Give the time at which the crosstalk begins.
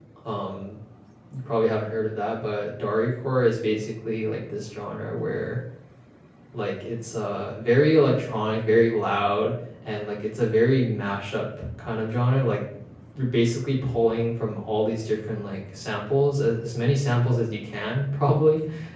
none

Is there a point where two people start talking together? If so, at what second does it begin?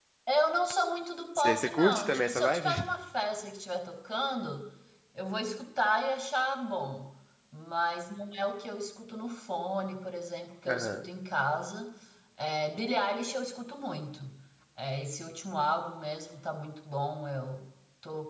1.4 s

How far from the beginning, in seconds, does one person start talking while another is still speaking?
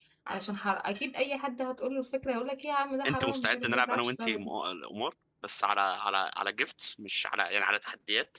3.0 s

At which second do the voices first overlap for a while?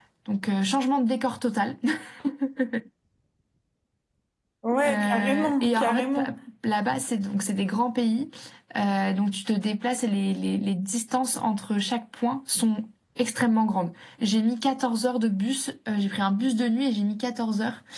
4.8 s

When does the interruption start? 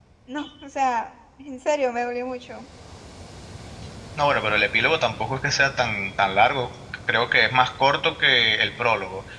none

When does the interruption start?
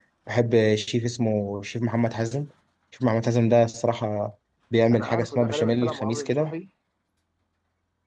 4.9 s

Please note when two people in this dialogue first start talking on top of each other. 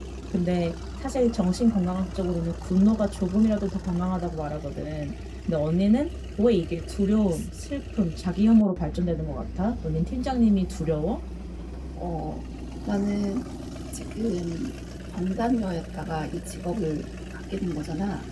none

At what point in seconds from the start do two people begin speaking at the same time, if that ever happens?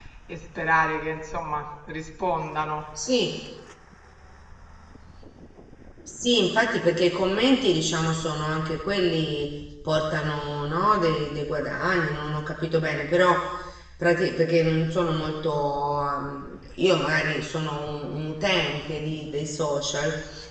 none

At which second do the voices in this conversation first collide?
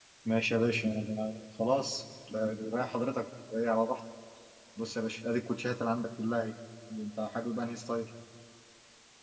none

